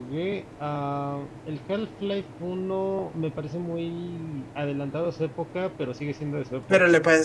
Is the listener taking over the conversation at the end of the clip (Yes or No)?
Yes